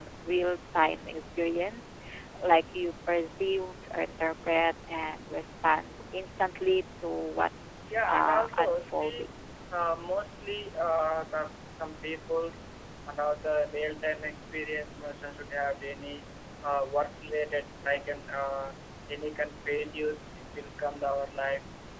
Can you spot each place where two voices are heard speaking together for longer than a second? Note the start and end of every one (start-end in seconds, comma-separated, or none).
7.9-9.3